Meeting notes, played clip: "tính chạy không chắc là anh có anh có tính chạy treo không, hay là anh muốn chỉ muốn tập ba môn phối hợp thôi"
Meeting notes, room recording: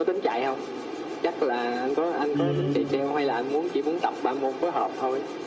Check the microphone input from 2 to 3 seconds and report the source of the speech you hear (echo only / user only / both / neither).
both